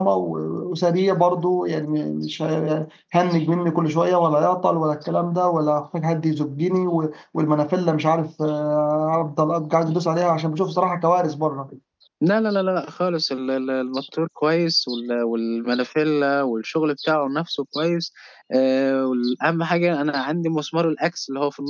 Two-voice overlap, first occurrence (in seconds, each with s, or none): none